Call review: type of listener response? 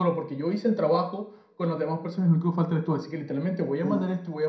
listening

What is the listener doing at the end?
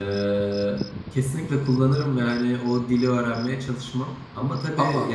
listening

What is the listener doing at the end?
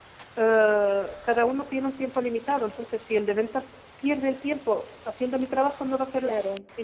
taking over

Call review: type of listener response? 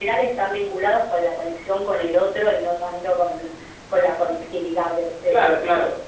taking over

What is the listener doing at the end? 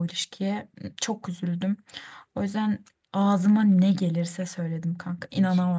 taking over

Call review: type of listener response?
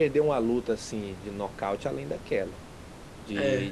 listening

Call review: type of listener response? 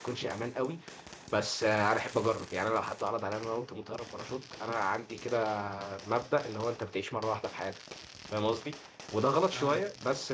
listening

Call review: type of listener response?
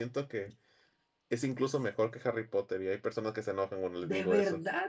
taking over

